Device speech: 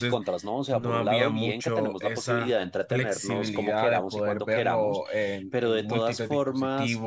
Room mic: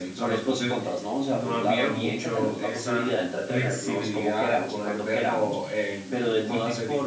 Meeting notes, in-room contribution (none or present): none